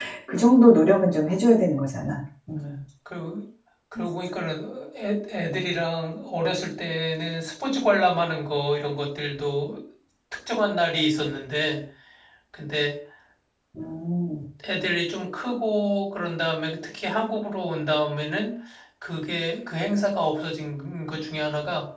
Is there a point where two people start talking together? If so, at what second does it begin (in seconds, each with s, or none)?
none